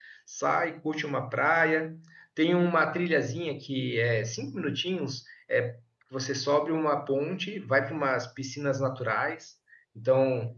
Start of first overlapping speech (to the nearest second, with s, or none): none